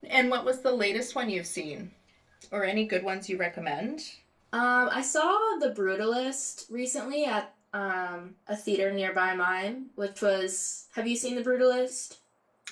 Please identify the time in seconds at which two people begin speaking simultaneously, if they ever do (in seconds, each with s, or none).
none